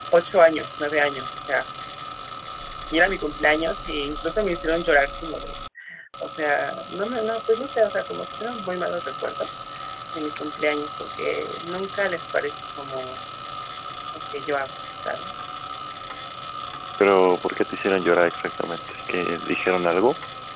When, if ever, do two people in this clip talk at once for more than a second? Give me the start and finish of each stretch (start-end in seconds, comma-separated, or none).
none